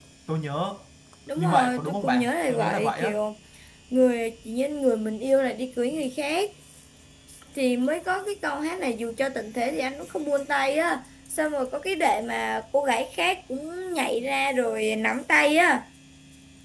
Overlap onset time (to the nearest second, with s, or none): 1 s